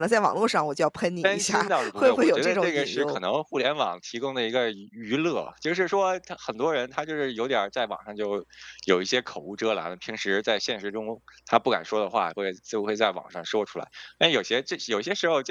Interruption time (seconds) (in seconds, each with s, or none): 1.2 s